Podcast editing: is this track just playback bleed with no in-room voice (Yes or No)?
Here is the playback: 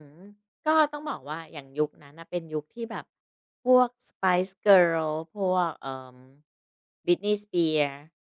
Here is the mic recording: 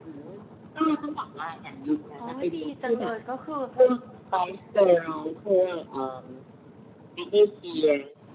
No